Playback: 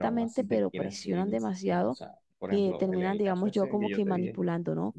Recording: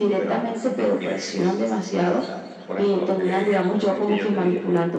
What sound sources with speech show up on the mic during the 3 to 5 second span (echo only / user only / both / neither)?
echo only